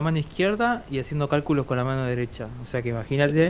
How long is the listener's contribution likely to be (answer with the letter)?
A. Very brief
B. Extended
A